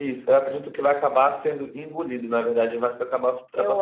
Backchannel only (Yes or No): Yes